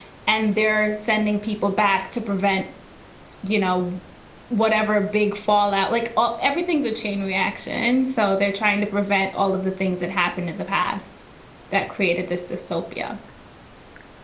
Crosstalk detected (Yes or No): No